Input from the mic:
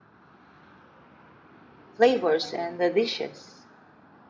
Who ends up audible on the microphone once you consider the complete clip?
user only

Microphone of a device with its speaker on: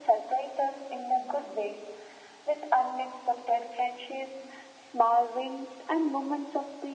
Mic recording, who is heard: echo only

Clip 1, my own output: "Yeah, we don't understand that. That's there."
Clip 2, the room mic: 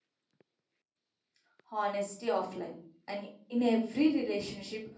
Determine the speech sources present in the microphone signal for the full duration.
user only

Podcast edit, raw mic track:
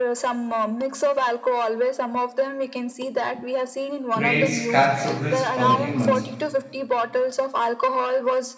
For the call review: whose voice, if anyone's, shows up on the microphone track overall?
both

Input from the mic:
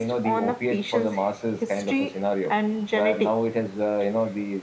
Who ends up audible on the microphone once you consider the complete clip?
echo only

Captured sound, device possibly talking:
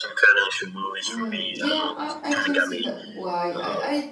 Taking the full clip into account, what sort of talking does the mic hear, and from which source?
both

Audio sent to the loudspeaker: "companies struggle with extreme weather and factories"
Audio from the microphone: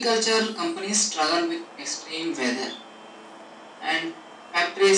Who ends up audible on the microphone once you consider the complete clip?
echo only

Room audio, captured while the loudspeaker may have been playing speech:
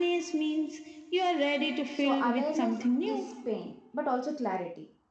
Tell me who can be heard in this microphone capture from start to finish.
both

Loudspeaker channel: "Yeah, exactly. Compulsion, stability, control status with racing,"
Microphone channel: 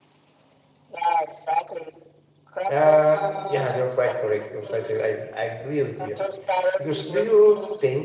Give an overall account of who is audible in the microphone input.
both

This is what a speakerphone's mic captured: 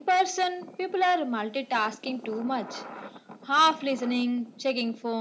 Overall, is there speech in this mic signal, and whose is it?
echo only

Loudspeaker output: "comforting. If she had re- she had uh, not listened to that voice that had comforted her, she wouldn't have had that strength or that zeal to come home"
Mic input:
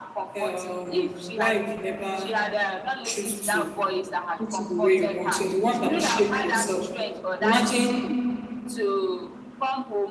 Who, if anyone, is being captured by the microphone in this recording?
both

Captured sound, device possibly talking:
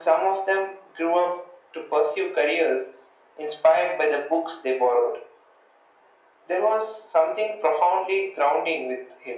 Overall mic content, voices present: echo only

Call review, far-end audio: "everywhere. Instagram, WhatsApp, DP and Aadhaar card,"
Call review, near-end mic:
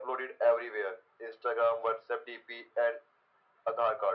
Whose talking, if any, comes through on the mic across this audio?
echo only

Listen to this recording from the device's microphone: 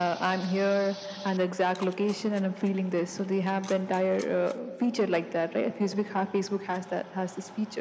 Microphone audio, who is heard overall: echo only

